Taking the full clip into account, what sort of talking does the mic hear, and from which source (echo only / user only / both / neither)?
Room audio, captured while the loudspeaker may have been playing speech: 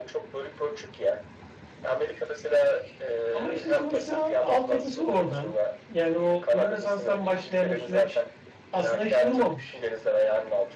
both